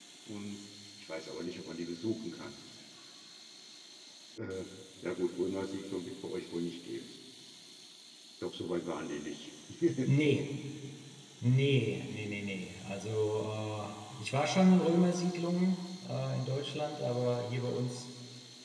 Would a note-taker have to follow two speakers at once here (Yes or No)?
No